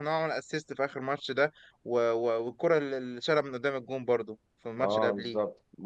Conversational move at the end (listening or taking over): taking over